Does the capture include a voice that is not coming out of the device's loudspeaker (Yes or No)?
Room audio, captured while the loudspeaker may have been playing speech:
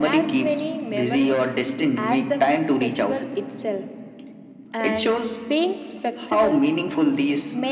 No